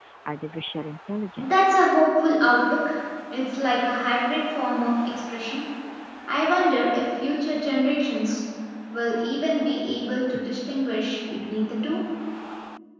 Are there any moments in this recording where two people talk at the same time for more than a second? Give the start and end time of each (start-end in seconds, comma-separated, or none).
none